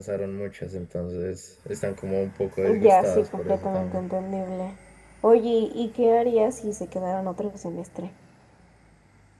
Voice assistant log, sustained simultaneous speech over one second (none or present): present